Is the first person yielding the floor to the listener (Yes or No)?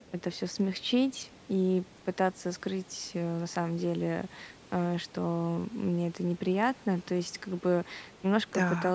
No